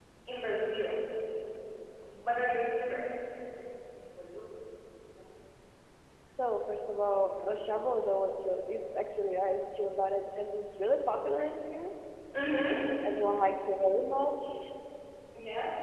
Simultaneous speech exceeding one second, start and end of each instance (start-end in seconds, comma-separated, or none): none